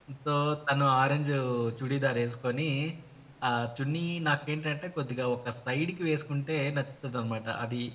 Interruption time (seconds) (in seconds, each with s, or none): none